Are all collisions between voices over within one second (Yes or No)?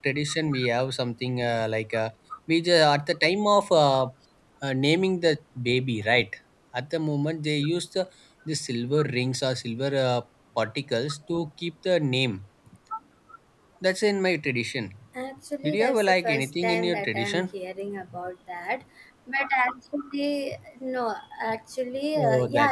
No